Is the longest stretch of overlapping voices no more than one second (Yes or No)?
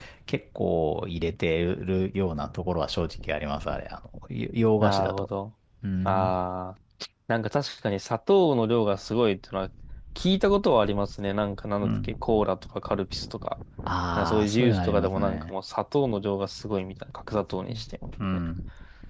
No